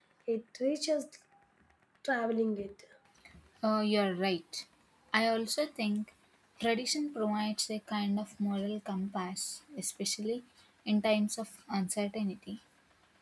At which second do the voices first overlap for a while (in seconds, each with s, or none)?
none